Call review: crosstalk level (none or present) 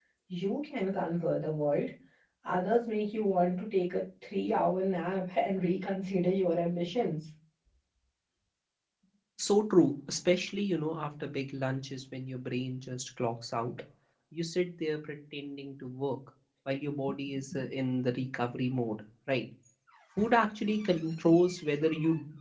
none